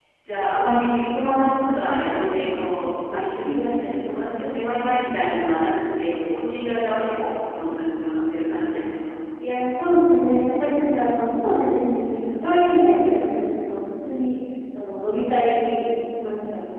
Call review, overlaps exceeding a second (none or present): none